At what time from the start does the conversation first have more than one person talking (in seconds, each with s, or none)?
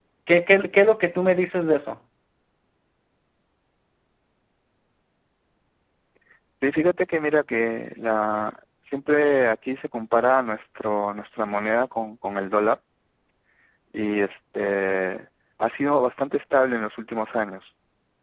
none